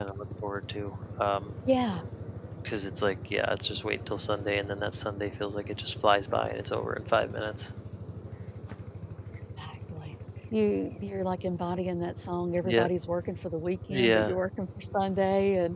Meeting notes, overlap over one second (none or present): none